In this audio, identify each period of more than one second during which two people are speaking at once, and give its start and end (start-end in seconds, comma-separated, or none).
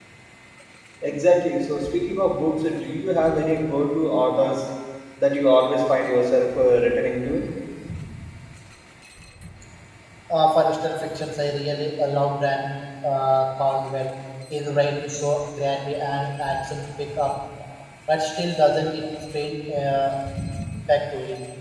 none